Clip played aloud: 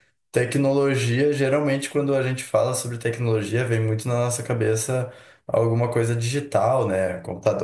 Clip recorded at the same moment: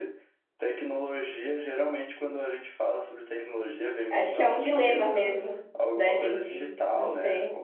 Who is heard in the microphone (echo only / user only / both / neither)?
both